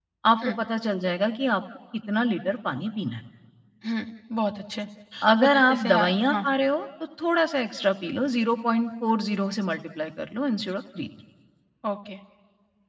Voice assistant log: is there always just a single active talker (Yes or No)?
No